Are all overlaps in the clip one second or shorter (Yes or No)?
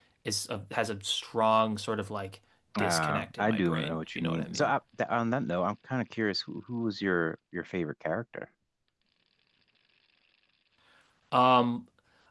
No